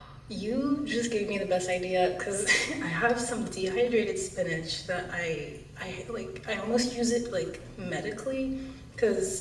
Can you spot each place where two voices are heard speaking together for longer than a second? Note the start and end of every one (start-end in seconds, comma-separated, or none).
none